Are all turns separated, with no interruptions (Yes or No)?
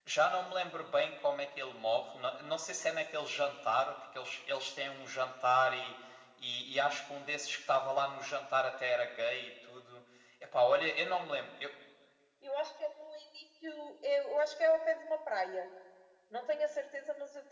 Yes